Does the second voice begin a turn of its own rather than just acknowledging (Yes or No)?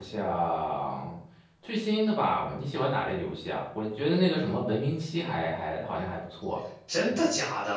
Yes